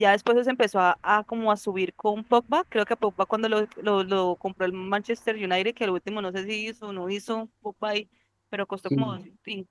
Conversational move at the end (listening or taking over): listening